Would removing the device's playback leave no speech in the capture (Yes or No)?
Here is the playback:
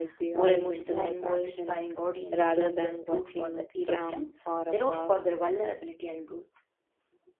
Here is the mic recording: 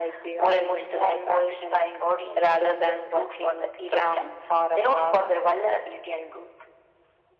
Yes